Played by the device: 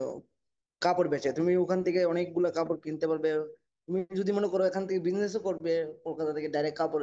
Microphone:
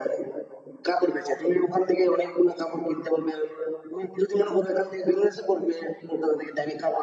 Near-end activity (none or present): none